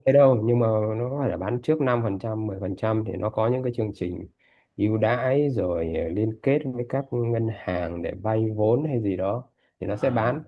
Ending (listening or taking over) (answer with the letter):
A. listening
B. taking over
A